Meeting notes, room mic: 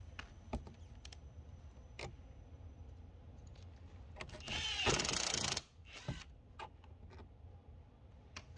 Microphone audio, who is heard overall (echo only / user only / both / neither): neither